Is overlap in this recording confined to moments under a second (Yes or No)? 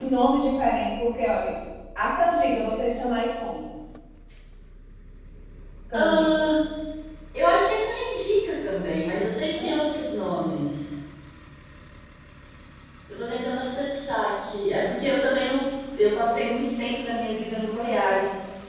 Yes